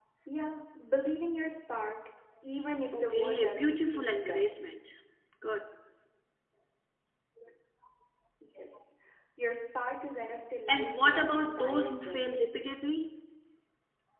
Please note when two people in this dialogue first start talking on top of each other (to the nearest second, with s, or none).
3 s